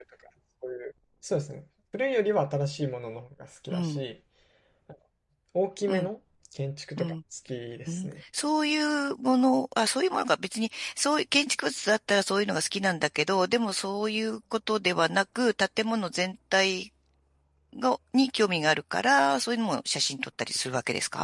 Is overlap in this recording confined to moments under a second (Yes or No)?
Yes